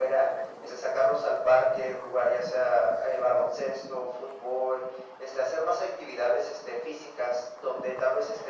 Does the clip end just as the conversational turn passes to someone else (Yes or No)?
No